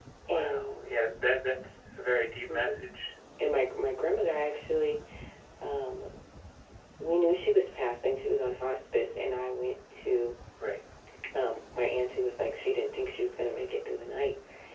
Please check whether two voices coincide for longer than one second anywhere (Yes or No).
No